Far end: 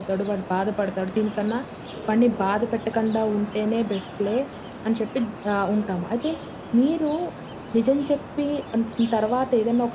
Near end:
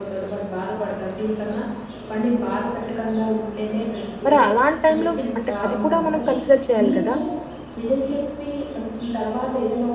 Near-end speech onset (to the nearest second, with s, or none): 4 s